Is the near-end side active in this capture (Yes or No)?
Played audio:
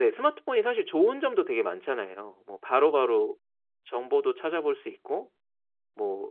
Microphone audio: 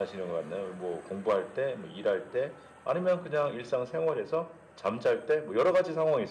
Yes